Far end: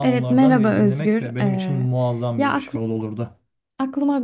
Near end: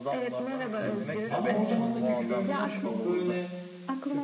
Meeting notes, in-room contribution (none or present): present